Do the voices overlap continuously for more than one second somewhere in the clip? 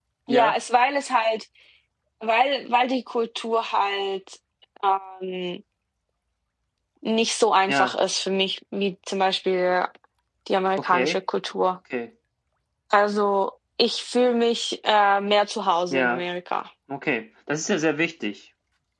No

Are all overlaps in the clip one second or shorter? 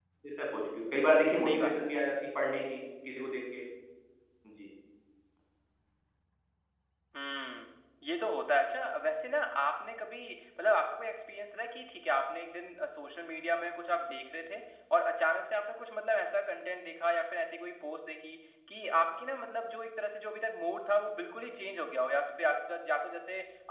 Yes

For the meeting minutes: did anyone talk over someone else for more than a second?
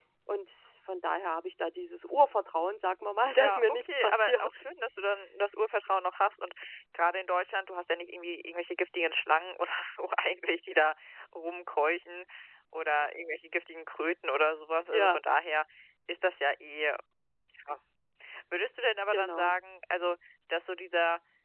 Yes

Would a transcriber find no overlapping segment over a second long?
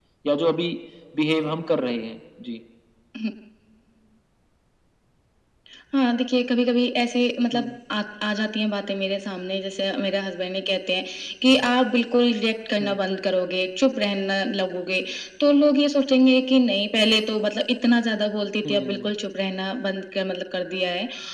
Yes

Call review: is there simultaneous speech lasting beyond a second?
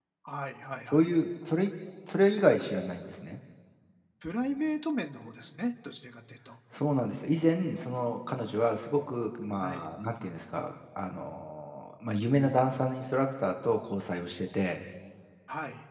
No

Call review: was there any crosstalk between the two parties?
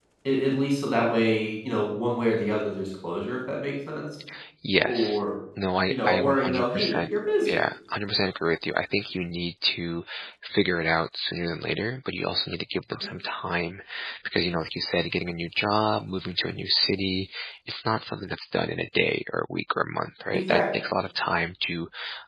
Yes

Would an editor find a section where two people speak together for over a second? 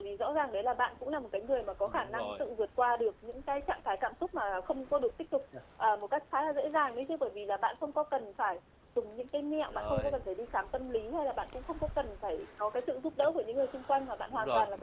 No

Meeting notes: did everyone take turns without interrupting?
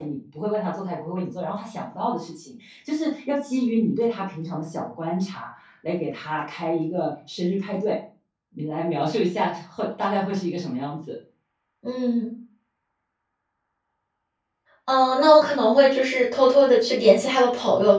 Yes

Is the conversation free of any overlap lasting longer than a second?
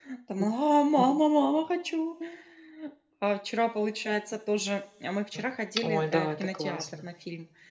No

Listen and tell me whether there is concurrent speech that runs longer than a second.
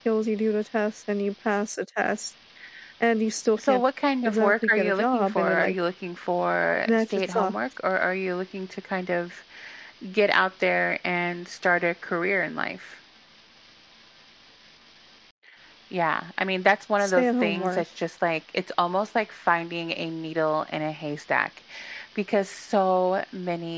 Yes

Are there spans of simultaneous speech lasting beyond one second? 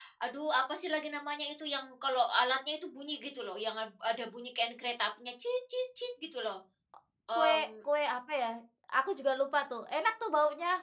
No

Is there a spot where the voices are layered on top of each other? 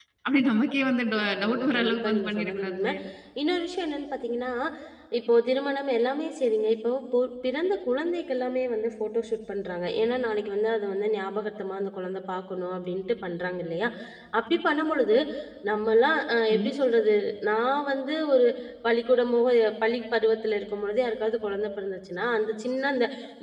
Yes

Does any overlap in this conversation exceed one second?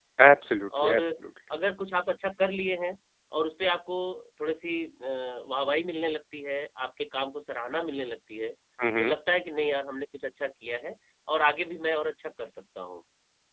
No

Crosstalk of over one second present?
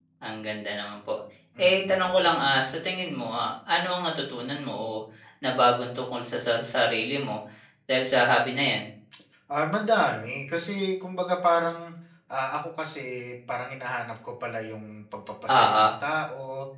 No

